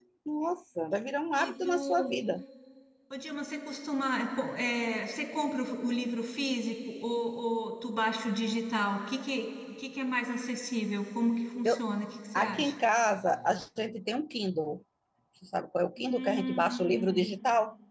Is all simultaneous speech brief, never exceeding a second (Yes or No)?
No